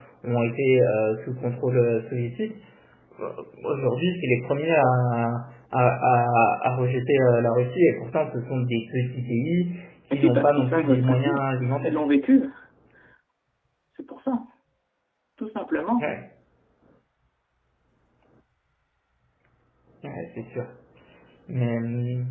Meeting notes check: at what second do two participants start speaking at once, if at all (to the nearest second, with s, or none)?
10 s